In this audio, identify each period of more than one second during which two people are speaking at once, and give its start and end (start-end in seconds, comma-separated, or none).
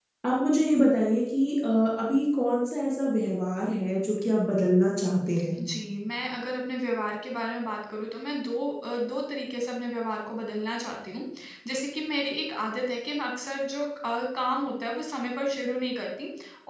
none